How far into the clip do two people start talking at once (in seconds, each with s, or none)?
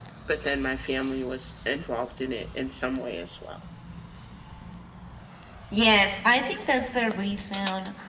none